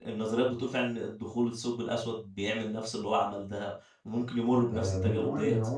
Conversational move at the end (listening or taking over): taking over